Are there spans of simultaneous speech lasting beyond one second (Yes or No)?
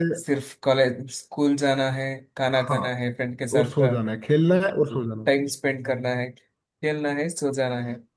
No